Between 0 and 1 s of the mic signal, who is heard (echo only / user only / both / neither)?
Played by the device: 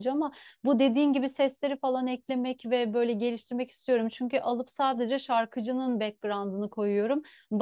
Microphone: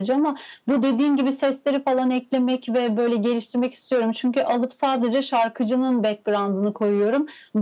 echo only